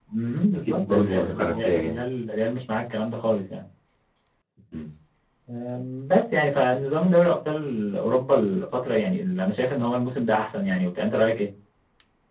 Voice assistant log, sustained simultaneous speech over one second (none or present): present